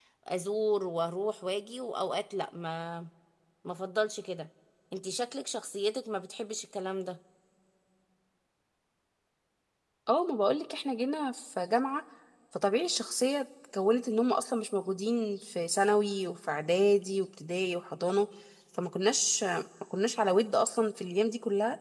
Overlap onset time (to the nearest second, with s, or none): none